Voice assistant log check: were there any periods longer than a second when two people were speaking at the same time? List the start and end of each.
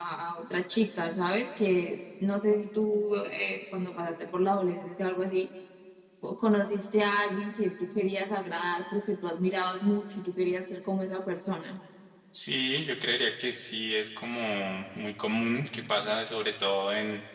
none

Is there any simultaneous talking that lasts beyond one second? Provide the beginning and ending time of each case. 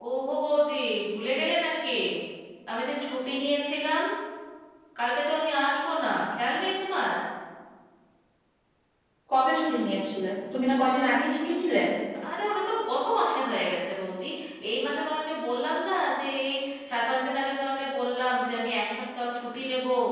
none

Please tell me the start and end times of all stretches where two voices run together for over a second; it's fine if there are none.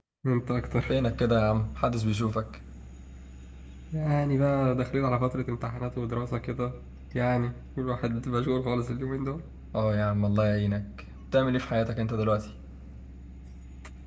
none

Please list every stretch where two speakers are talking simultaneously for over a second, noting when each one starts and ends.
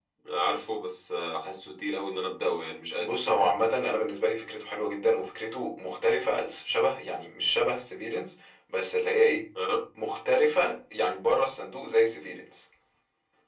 none

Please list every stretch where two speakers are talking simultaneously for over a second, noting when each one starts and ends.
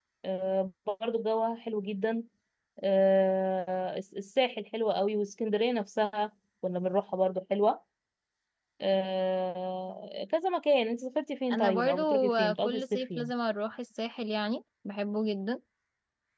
11.5-13.3

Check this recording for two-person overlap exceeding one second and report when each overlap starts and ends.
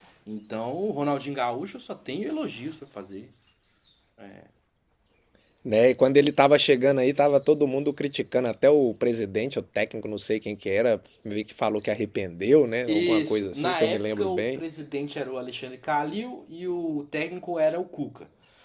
12.9-14.6

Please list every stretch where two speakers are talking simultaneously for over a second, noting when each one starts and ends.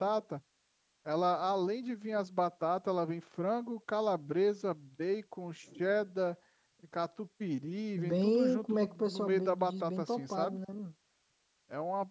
8.0-10.6

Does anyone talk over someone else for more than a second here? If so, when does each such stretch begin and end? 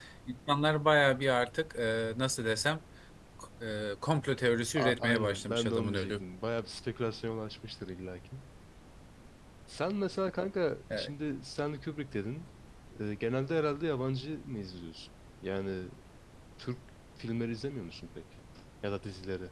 4.8-6.2

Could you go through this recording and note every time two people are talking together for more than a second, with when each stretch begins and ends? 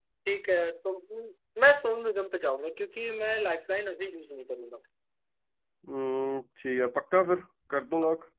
none

